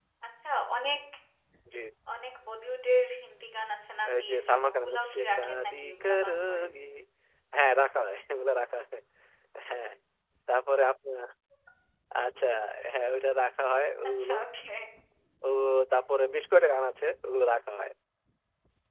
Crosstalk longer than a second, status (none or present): present